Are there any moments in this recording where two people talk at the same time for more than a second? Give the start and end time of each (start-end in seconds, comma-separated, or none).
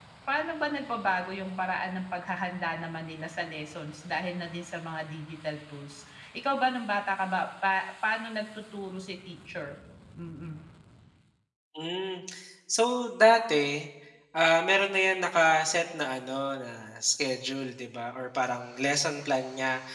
none